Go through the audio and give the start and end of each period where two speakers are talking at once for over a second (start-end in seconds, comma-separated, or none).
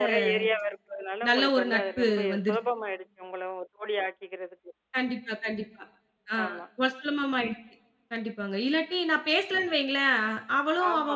1.3-2.6